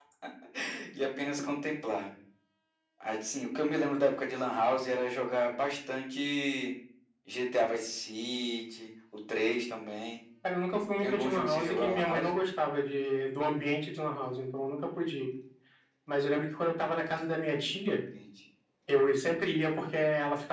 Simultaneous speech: Yes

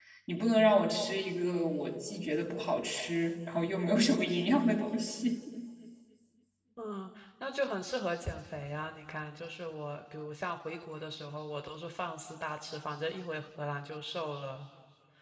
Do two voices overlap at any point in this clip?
No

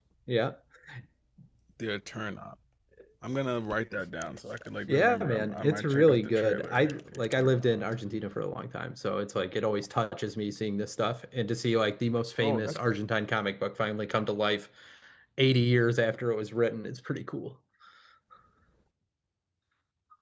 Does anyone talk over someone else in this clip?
Yes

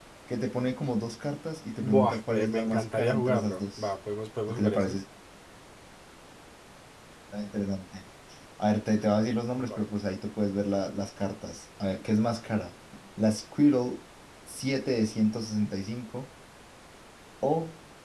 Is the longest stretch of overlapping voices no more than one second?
No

